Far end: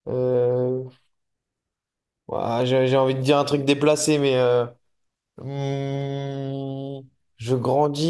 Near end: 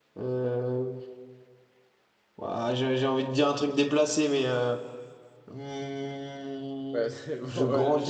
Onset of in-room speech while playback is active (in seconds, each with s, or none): 6.9 s